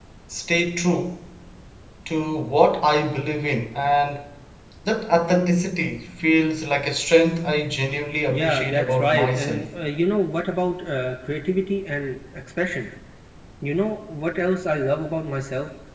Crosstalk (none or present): present